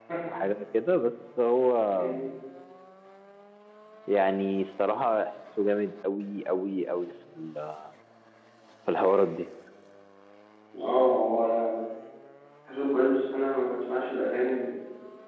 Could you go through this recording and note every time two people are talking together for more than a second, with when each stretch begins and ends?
none

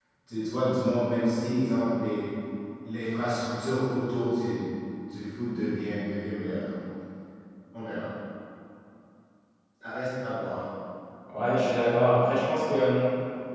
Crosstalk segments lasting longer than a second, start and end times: none

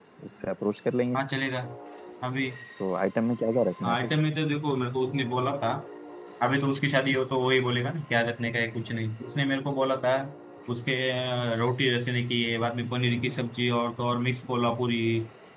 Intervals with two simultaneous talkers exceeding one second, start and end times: none

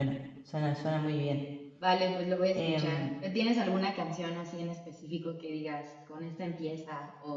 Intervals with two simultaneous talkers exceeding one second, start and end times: none

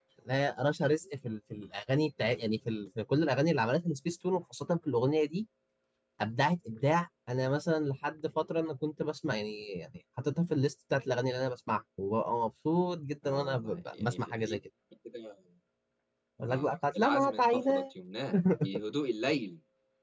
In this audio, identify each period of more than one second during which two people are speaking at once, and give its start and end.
13.2-14.6, 16.5-17.8

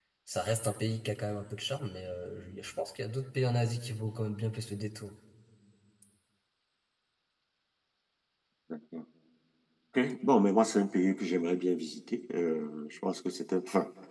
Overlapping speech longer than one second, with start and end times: none

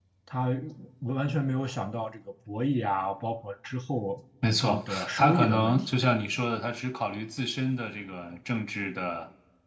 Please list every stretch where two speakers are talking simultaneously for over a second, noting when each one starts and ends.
4.6-6.0

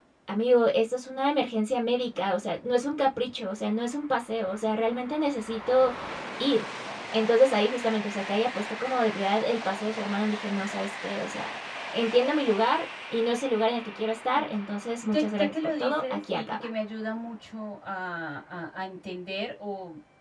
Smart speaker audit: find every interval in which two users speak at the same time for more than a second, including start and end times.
14.9-16.7

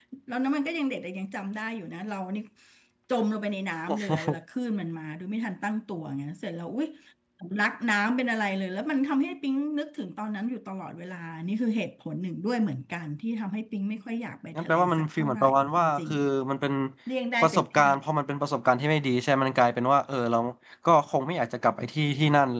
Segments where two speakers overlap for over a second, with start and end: 14.6-16.1

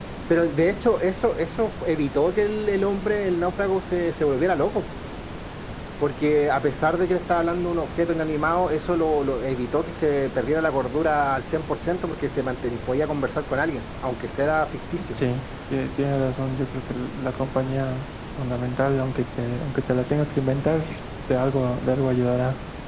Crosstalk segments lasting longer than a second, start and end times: none

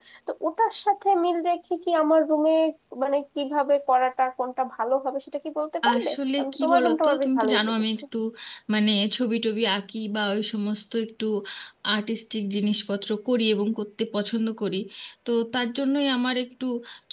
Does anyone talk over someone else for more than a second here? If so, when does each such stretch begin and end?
5.9-7.8

